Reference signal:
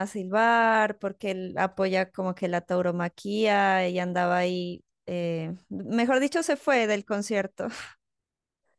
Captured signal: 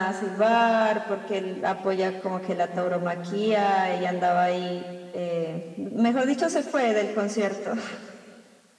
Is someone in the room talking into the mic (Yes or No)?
No